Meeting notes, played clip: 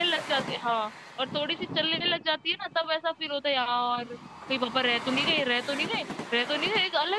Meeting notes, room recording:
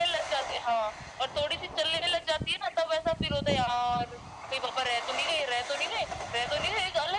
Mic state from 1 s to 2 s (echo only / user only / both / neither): echo only